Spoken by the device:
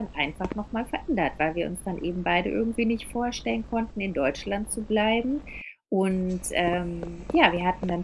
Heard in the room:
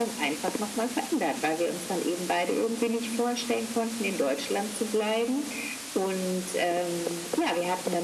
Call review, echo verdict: present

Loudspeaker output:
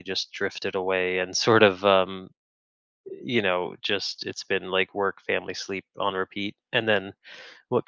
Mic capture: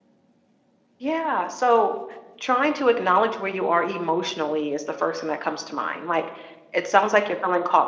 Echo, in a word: none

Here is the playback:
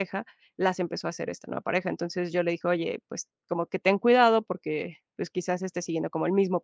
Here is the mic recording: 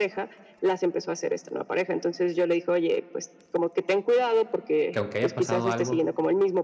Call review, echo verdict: present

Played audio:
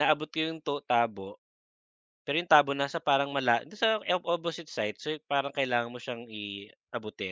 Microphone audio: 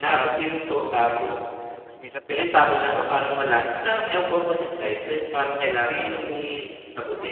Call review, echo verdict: present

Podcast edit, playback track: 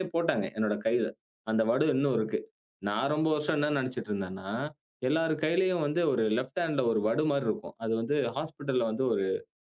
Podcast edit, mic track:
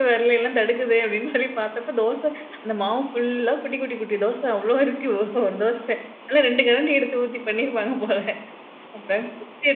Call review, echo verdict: none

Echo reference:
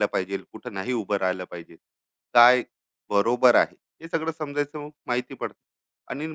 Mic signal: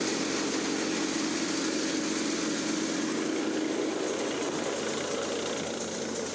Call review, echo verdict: none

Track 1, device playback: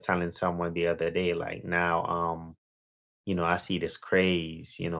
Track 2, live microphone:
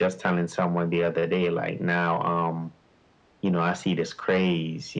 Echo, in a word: present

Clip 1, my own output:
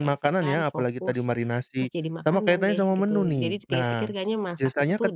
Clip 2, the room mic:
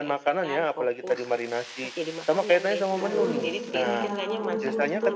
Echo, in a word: present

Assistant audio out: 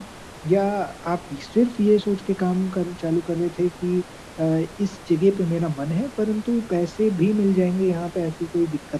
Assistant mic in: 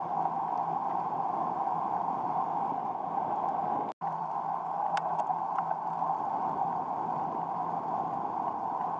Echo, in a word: none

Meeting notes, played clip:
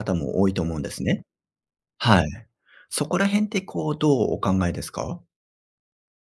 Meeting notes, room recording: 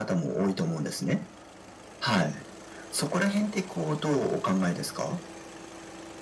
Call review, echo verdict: present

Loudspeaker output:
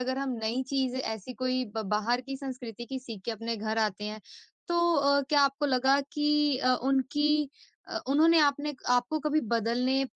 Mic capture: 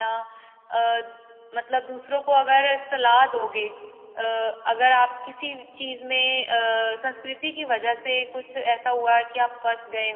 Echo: none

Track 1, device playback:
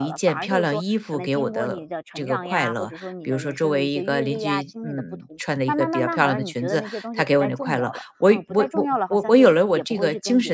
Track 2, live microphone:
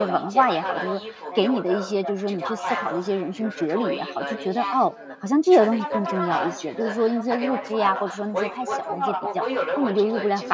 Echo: present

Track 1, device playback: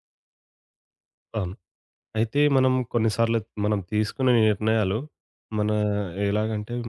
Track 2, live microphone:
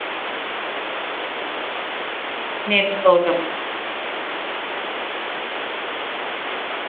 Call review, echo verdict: none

